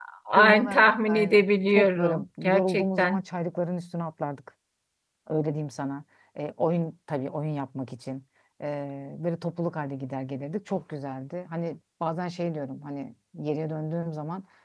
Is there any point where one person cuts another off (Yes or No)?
Yes